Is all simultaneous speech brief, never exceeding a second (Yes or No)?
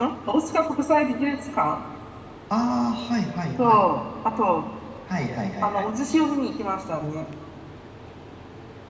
Yes